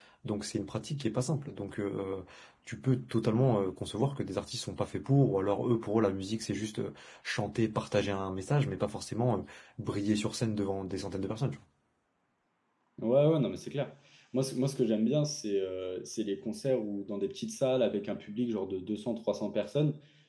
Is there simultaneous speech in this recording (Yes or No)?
No